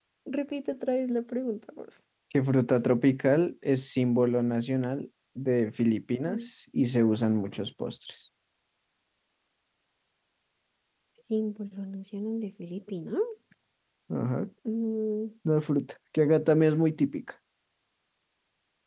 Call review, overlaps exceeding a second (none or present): none